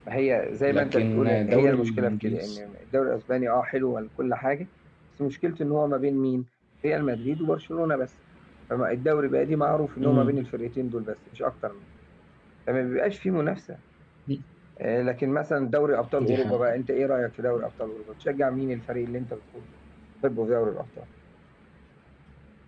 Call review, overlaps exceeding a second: present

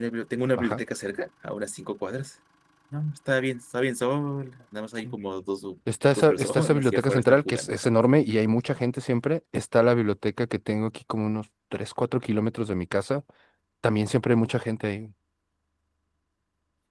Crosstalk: present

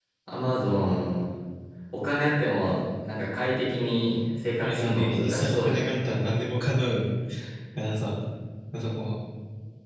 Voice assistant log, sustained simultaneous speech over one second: present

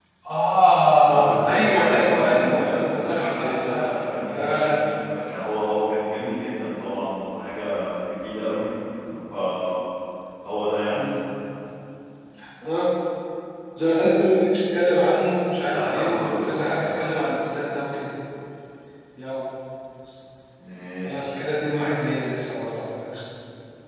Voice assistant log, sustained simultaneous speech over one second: present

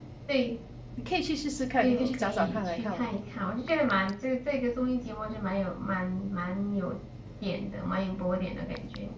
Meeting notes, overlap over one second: present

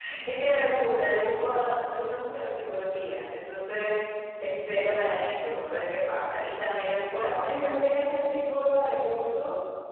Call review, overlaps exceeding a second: none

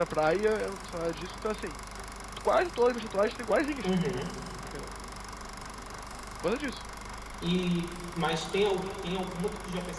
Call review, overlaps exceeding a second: none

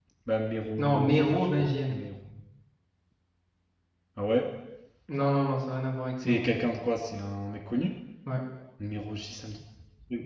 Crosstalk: present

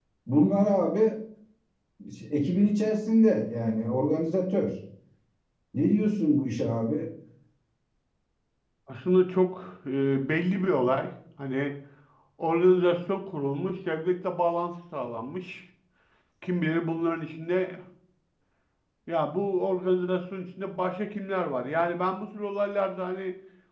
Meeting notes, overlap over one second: none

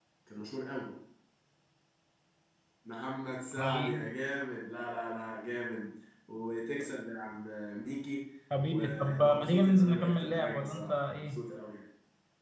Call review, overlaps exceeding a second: present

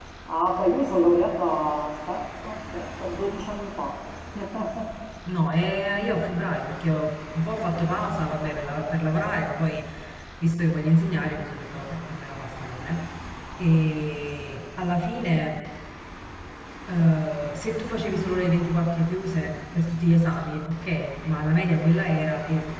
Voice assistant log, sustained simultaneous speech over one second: none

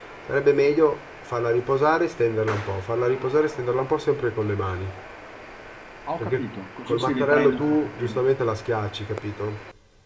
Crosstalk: present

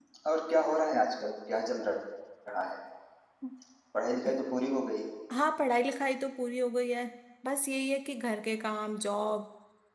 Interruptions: none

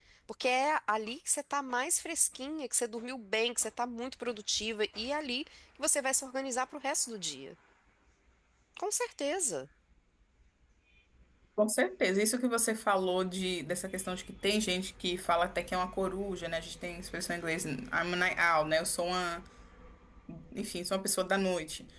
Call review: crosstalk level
none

